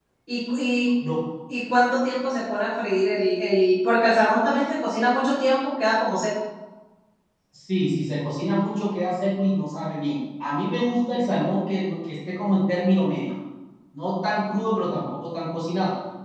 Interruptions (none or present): none